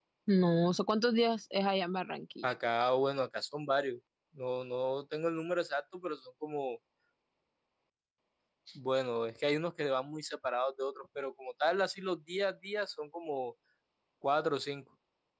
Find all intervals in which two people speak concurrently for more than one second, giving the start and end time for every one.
none

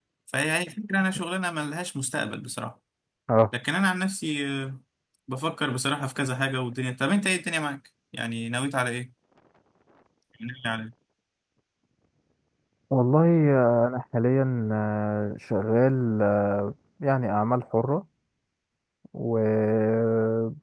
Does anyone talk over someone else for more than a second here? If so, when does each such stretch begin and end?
none

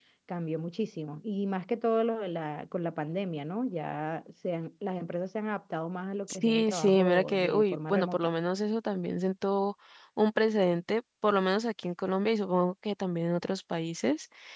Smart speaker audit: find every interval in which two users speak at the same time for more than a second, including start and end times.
6.3-8.3

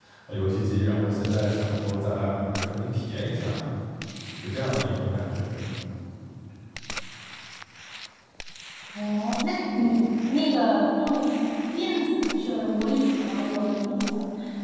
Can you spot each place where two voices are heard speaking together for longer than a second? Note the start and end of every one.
none

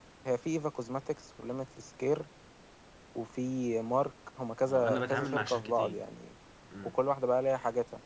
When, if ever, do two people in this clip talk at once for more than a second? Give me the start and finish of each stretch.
4.7-6.0

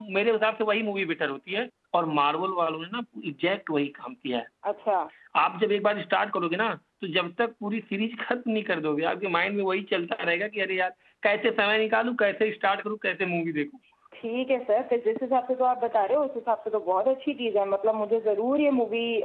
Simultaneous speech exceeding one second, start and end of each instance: none

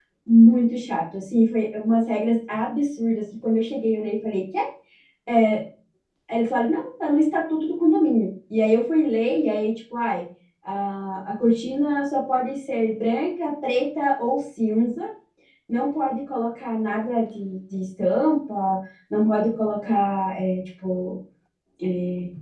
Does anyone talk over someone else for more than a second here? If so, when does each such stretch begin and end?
none

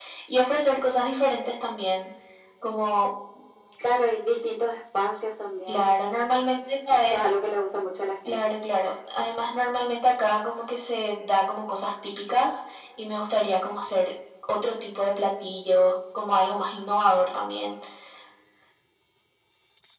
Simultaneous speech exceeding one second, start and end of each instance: none

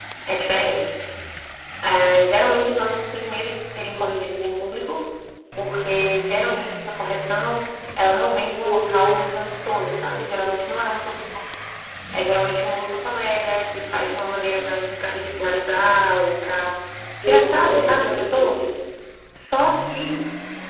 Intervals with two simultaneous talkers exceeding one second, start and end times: 17.2-18.6

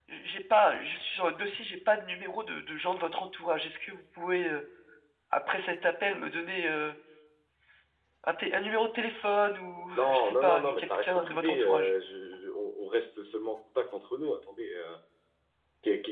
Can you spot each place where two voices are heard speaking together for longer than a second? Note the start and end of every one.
9.9-11.9

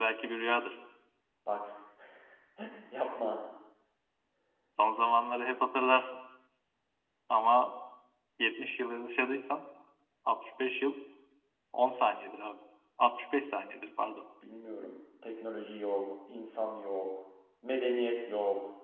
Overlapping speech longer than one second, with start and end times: none

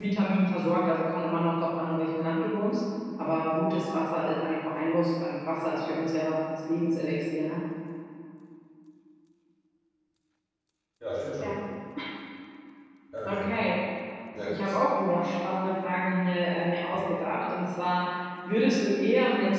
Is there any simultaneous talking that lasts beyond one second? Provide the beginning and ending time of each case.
none

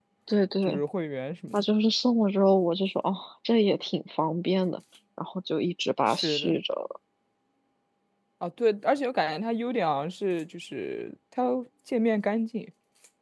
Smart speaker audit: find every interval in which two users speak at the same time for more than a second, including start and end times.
none

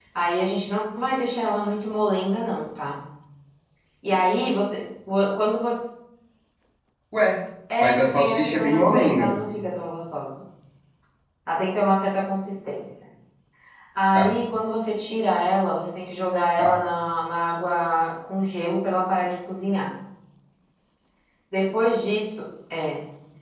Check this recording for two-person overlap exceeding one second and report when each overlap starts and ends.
7.8-9.3

